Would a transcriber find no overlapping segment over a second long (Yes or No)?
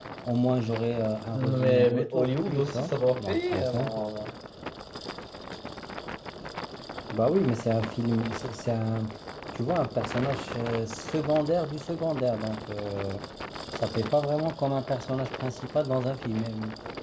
No